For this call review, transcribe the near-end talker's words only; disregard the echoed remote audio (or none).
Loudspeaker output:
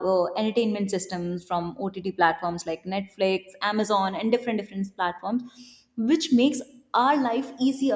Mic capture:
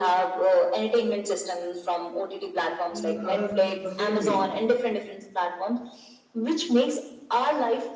in other the same way